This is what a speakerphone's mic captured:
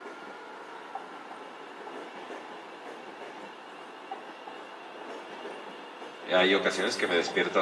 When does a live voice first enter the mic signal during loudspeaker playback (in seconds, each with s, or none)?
6.2 s